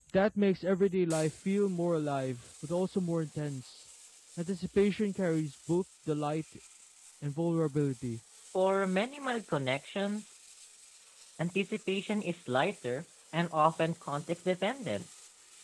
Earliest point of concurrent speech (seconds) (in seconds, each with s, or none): none